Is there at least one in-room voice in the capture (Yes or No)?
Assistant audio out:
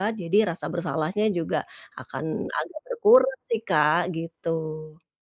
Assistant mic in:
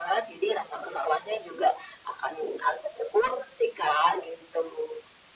No